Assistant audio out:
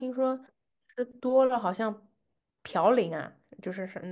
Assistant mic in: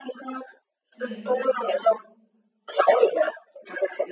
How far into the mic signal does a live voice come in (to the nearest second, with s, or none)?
1 s